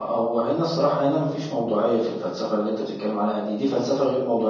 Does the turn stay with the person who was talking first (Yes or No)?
Yes